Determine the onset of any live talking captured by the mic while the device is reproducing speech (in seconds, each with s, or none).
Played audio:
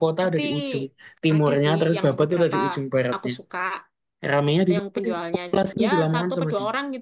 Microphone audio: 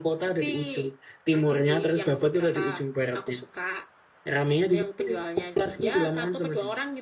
none